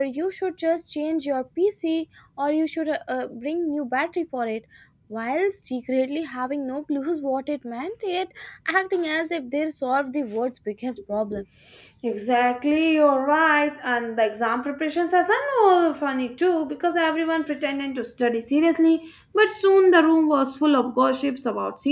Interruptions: none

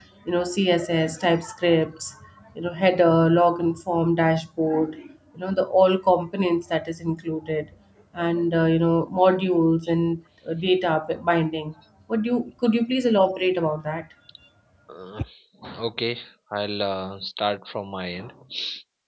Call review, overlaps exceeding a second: none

